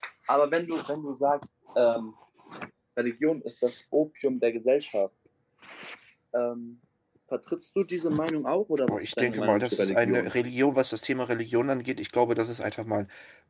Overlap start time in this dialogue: 8.9 s

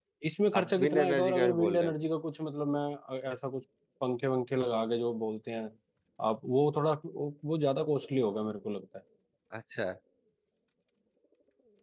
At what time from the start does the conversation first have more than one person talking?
0.6 s

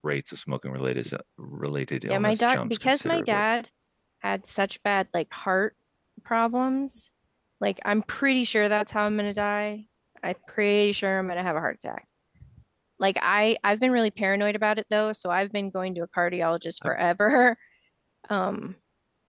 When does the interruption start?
2.1 s

